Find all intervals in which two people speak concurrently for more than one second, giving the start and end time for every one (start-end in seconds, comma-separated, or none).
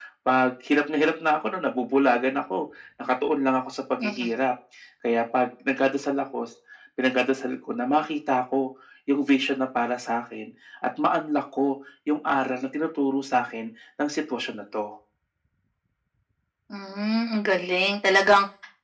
none